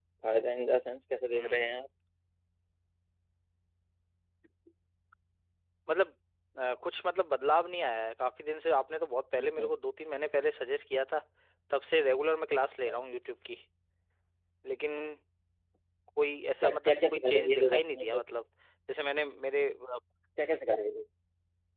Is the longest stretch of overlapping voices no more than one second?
No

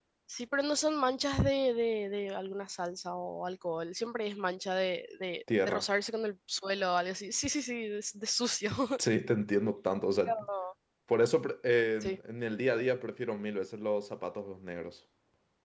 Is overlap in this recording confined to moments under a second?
Yes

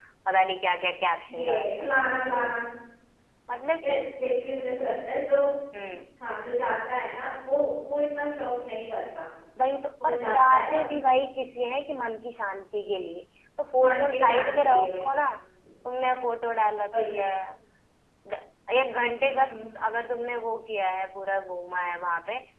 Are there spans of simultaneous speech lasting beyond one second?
Yes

